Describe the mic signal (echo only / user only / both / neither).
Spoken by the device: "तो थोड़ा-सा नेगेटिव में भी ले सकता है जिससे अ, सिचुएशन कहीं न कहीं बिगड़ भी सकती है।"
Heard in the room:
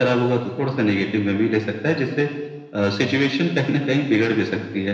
echo only